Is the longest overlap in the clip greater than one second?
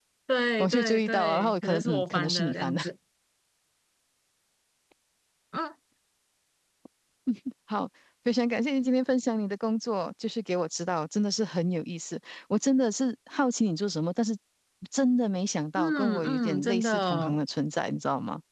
Yes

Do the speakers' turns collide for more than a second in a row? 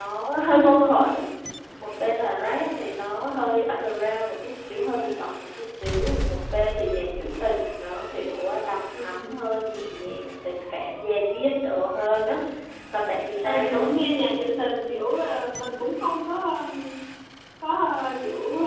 No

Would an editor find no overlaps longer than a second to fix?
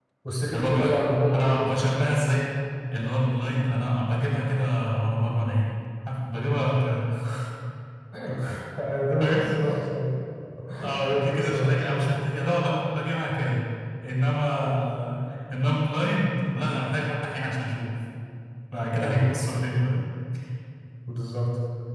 No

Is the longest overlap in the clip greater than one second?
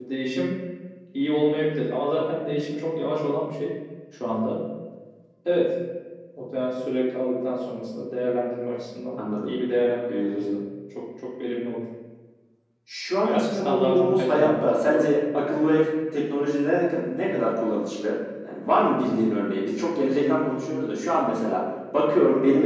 Yes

